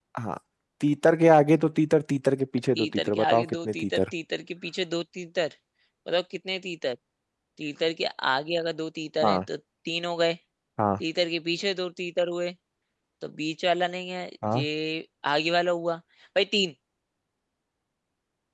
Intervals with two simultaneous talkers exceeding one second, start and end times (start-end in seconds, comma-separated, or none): 2.8-4.0